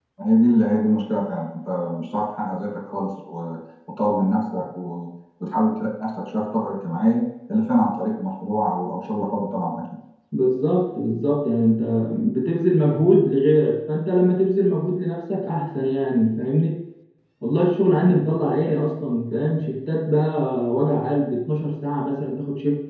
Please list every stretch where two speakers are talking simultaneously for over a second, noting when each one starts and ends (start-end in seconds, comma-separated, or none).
none